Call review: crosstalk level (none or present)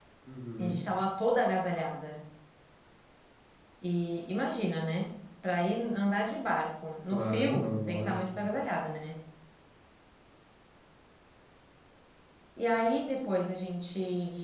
present